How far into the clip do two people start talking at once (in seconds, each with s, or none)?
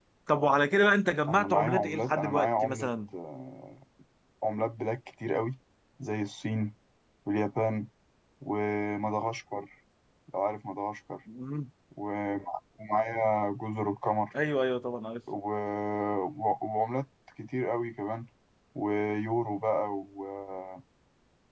1.3 s